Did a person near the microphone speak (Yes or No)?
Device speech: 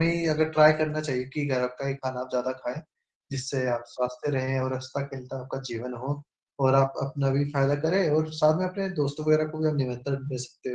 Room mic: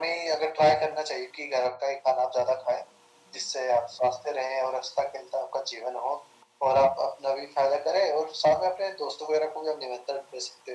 No